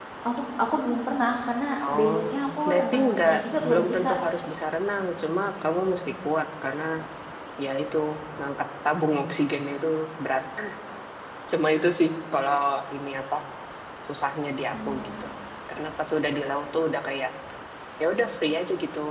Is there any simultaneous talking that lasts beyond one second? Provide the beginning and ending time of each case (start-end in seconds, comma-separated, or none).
2.7-4.1